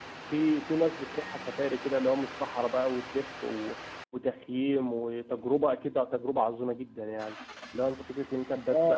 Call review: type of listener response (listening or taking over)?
taking over